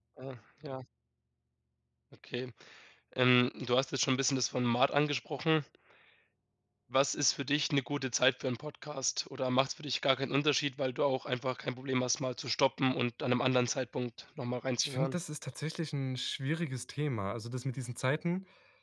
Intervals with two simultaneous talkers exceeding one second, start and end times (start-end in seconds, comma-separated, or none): none